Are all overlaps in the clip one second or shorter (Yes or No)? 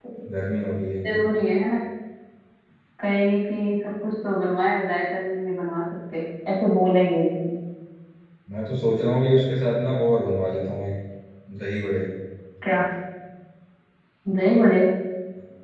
Yes